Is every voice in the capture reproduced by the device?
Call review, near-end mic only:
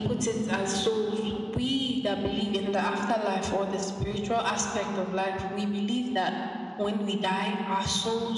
Yes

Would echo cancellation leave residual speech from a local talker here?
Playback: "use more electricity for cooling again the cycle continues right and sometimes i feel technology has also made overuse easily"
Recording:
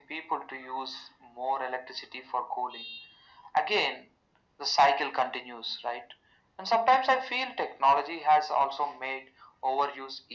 No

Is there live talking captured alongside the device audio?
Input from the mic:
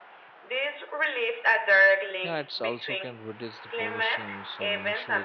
Yes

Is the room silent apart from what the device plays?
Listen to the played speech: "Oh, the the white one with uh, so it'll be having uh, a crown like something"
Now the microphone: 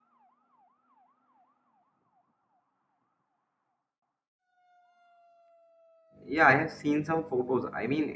No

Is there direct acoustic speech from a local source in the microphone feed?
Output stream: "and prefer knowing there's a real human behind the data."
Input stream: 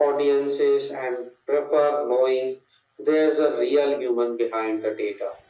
No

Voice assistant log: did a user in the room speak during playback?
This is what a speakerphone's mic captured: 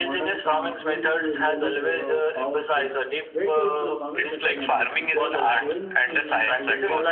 Yes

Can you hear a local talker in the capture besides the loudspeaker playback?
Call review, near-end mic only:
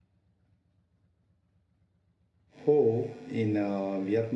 Yes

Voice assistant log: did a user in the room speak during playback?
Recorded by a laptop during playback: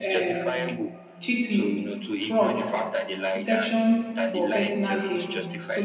Yes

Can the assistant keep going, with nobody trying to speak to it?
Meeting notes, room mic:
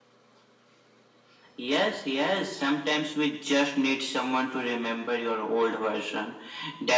Yes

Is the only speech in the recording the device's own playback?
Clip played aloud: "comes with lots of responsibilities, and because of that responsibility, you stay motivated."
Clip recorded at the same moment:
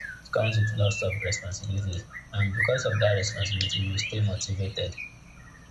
Yes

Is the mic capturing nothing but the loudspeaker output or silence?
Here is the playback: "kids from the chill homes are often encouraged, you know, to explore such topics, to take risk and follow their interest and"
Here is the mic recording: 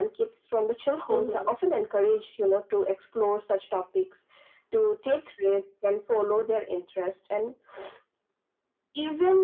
No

